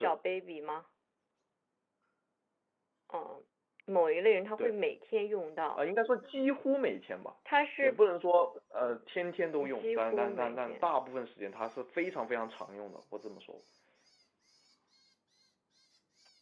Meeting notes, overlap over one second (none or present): present